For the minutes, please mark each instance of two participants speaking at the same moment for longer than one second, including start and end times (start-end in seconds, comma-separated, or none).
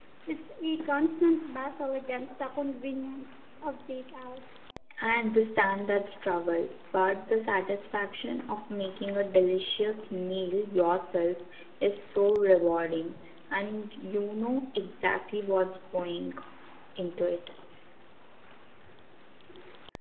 none